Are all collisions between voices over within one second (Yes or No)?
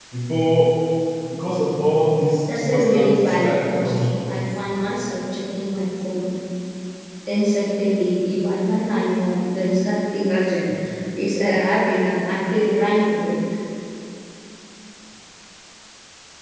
No